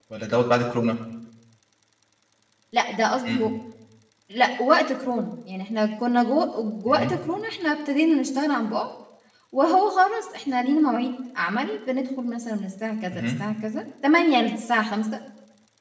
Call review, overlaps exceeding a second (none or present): none